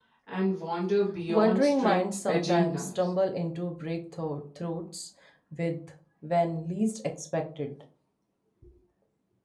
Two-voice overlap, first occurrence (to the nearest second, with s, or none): 1 s